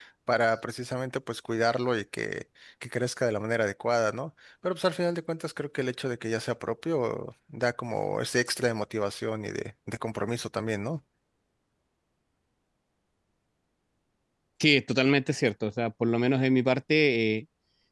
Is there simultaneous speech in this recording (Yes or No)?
No